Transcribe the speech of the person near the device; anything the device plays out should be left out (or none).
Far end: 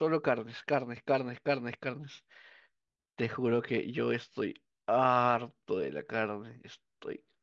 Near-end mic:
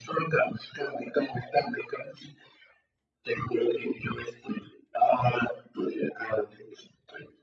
none